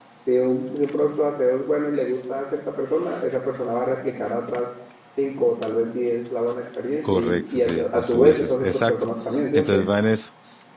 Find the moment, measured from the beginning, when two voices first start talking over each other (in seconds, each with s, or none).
7.1 s